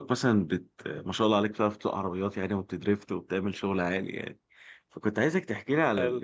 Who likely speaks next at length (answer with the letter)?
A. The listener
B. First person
B